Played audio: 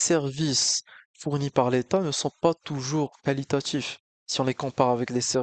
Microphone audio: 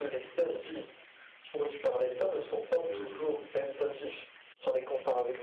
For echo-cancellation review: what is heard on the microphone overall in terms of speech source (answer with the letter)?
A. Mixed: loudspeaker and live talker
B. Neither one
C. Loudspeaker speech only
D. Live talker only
A